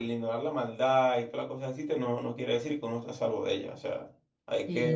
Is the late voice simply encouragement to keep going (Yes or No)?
No